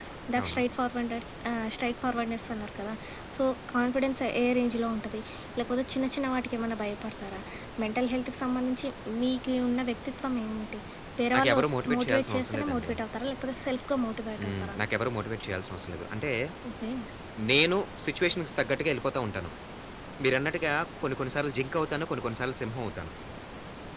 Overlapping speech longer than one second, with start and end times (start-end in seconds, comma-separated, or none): 11.4-12.9